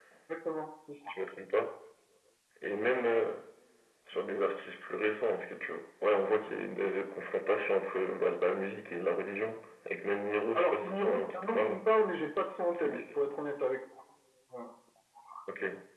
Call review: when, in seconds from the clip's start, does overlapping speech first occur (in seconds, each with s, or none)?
10.6 s